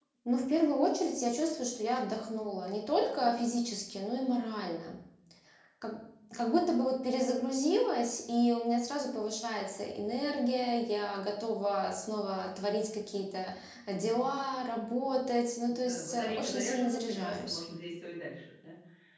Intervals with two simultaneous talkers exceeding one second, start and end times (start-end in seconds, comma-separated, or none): 15.8-17.6